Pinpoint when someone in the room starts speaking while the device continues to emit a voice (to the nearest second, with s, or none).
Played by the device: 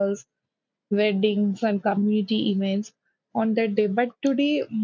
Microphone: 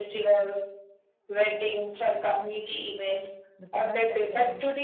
4 s